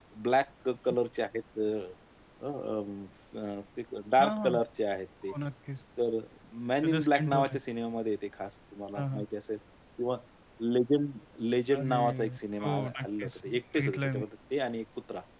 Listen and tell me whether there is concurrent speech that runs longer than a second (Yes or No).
Yes